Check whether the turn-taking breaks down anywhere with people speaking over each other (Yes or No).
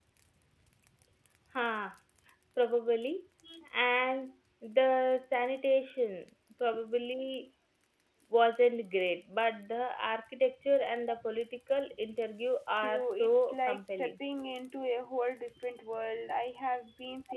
Yes